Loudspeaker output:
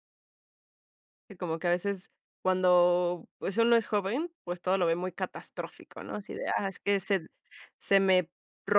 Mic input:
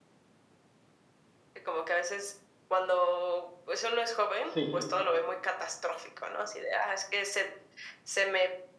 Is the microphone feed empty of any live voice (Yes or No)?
No